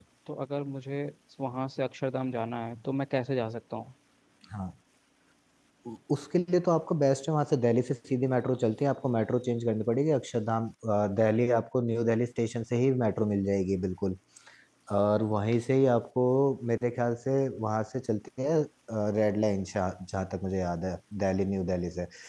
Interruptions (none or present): none